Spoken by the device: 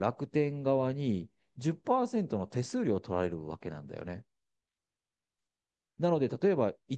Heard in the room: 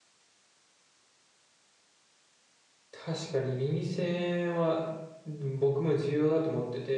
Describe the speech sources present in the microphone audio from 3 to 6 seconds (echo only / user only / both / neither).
user only